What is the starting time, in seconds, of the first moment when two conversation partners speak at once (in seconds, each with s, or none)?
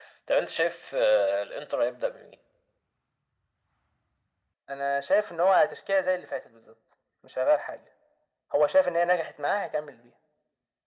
none